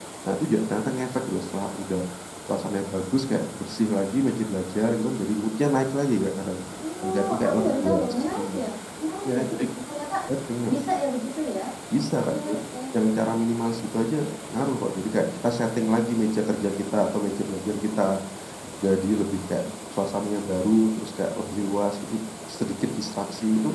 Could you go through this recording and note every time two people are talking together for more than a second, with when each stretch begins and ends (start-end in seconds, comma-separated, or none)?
7.0-8.6